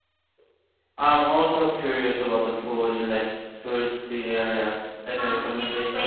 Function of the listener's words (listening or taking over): taking over